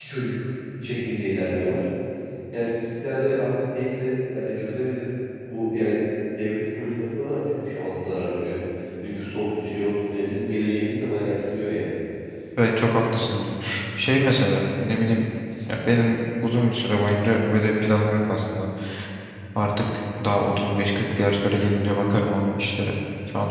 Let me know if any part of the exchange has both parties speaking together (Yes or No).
No